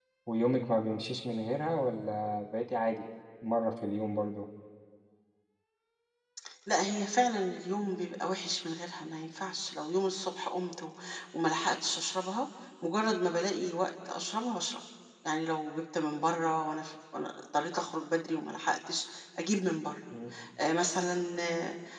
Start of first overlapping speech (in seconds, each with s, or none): none